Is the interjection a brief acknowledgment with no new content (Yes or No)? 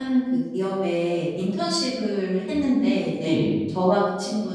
Yes